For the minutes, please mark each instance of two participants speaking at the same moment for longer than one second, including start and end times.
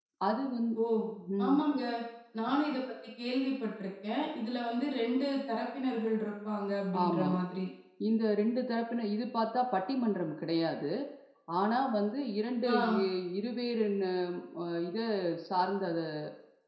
none

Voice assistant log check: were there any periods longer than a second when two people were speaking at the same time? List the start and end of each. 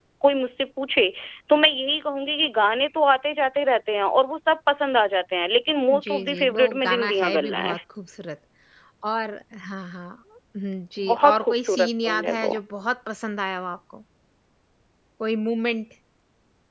5.9-7.8, 11.1-12.6

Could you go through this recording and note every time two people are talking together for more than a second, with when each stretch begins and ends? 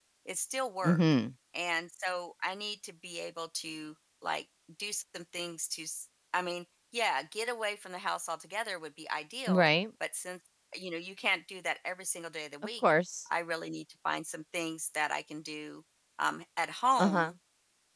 none

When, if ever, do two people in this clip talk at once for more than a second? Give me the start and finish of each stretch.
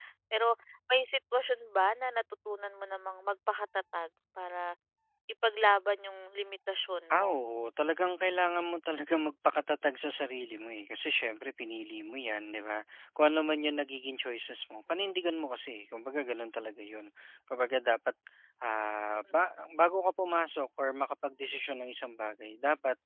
none

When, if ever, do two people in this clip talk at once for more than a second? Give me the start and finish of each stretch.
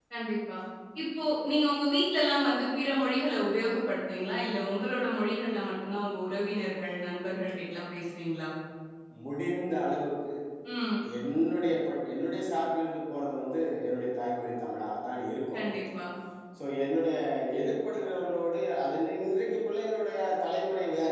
none

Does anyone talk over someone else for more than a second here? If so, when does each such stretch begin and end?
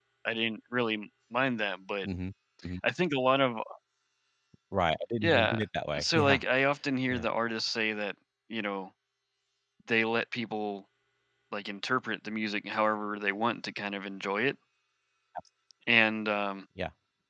none

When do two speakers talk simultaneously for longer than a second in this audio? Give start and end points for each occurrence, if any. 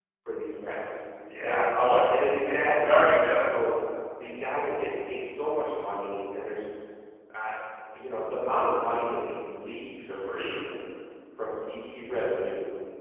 2.1-3.5

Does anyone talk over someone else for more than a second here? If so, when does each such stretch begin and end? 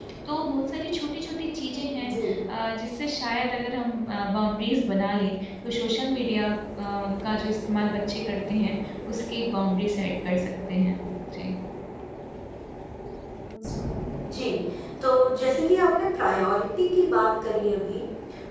none

